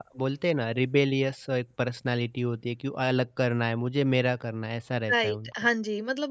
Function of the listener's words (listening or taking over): taking over